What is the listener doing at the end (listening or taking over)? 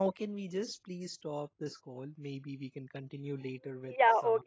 taking over